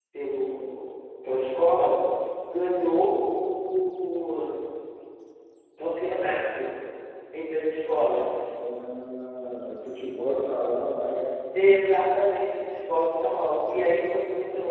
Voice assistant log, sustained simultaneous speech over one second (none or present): none